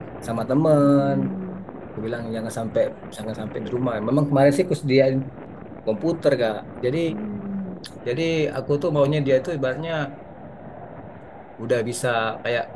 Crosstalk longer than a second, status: none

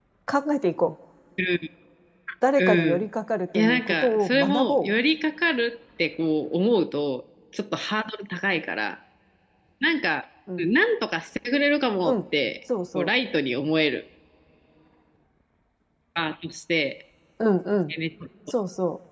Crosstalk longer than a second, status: present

